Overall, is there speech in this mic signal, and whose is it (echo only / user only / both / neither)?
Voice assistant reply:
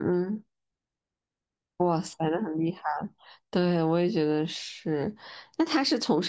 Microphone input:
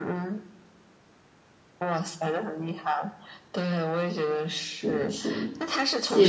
both